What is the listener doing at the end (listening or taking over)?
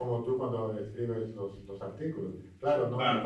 listening